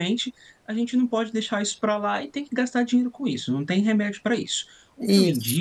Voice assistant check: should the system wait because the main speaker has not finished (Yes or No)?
Yes